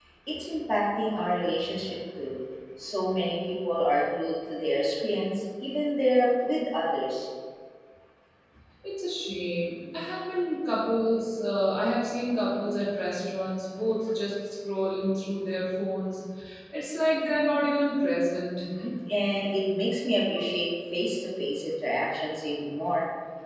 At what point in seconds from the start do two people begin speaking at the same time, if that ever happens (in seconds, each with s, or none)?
none